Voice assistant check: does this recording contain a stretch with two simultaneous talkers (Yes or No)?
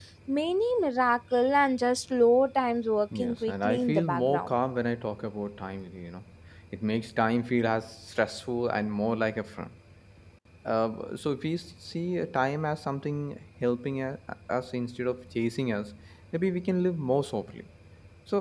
Yes